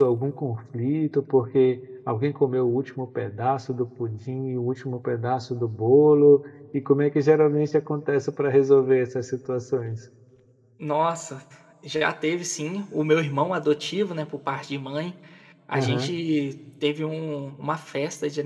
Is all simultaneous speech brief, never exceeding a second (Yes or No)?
Yes